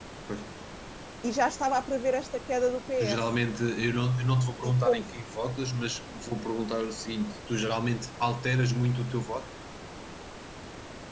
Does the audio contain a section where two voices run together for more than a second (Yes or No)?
No